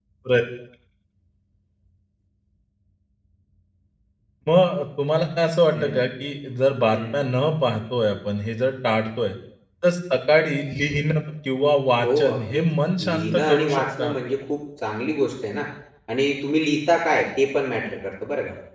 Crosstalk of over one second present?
Yes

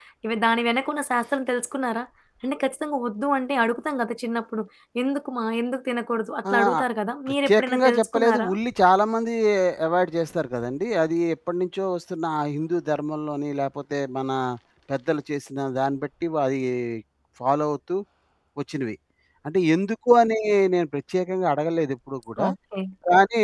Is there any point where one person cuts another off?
Yes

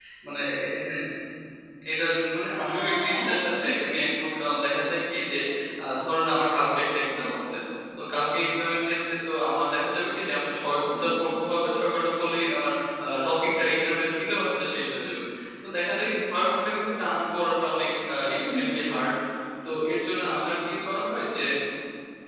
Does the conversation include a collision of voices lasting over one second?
Yes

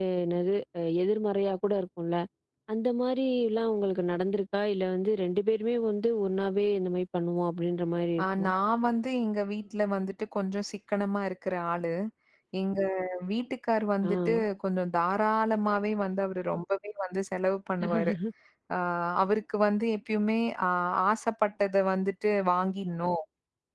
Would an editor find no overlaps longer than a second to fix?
Yes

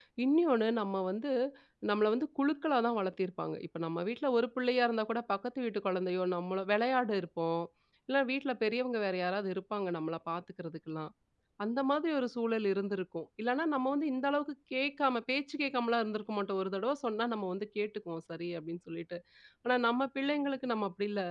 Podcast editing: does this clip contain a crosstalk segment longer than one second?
No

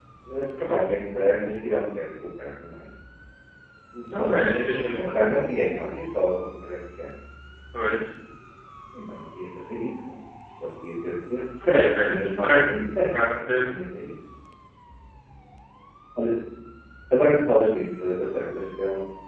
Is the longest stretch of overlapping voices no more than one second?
No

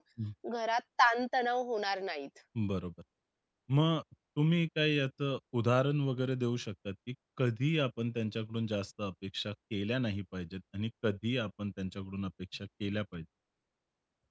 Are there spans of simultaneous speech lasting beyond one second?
No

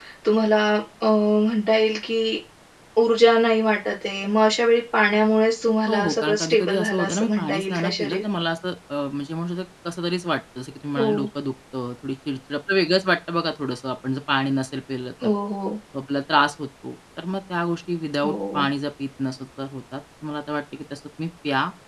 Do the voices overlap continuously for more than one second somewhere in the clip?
Yes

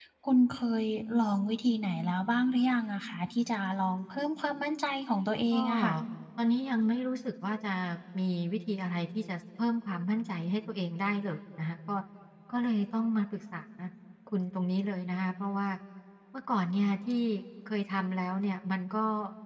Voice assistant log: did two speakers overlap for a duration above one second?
No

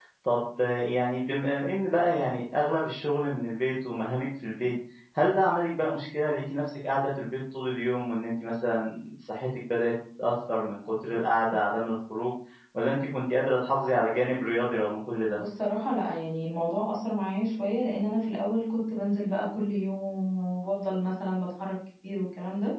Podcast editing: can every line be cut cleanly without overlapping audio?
Yes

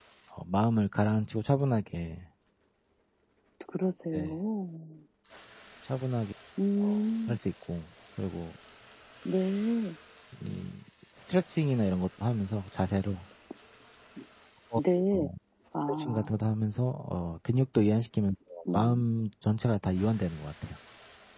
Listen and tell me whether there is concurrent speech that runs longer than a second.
No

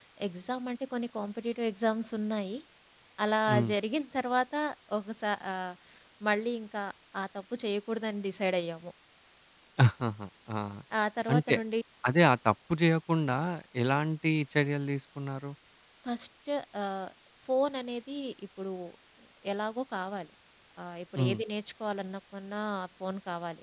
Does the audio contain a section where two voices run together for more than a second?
No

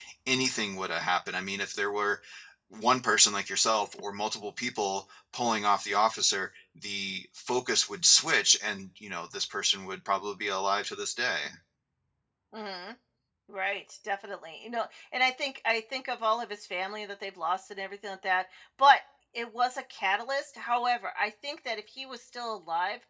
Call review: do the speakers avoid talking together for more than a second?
Yes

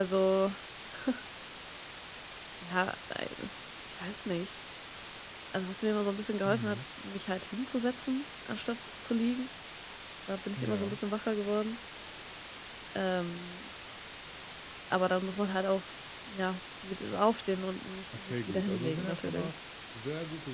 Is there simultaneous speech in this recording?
Yes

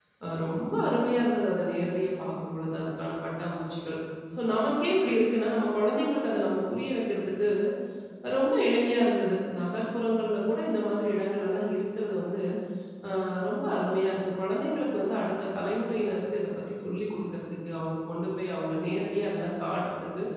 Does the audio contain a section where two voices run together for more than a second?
No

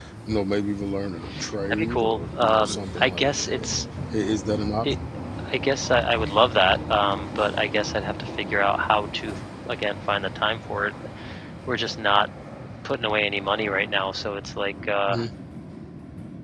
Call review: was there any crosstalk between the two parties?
Yes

